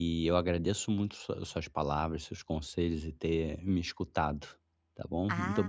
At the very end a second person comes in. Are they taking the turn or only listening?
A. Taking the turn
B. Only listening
A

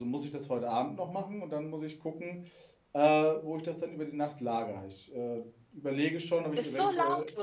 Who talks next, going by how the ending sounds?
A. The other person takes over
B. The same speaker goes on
A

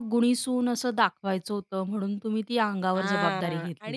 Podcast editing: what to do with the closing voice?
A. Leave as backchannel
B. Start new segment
B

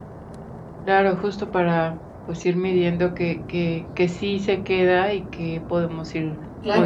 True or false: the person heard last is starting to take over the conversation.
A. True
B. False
A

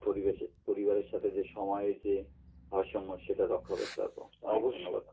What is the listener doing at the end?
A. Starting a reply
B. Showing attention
A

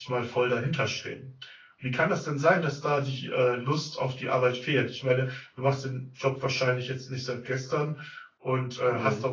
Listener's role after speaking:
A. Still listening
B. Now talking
A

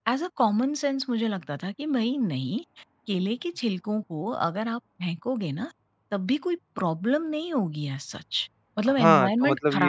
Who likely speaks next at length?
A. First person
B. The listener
B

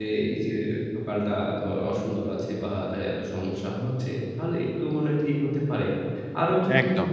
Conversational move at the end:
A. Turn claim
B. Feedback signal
B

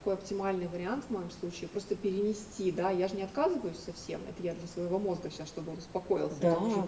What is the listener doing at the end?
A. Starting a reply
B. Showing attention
A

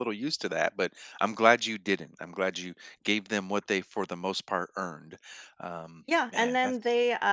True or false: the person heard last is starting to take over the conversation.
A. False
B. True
B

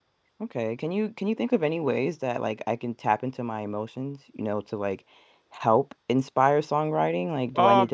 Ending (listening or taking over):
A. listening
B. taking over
B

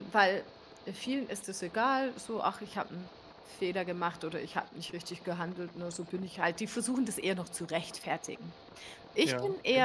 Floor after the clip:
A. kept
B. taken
A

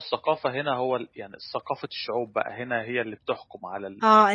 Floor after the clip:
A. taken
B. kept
A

